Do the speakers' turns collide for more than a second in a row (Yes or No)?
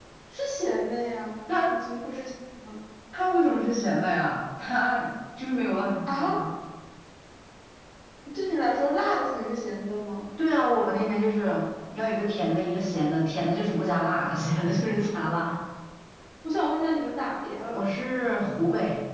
No